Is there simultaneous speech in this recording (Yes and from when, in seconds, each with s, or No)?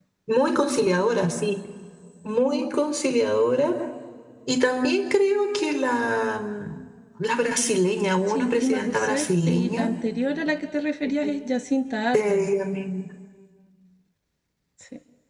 Yes, from 8.3 s